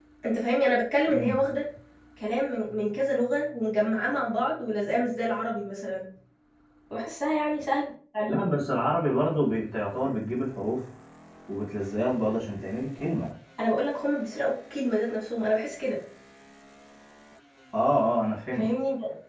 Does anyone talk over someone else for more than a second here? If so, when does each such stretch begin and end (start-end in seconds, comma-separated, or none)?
none